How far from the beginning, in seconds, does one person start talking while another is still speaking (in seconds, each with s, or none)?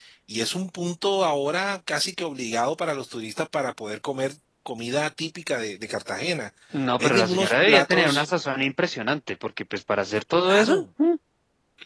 7.0 s